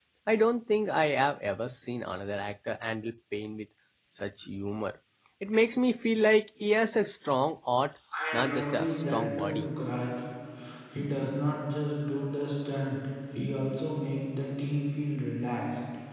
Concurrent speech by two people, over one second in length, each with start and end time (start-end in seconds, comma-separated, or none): 8.3-9.7